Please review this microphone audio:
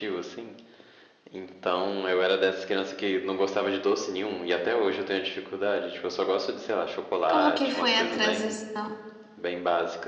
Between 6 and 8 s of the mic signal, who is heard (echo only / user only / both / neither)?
both